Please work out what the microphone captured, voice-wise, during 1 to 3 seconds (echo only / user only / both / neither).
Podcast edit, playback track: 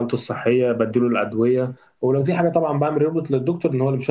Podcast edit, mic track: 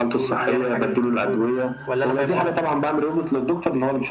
both